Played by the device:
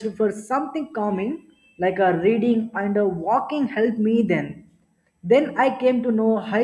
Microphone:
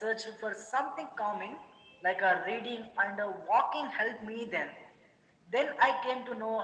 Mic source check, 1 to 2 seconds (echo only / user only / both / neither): echo only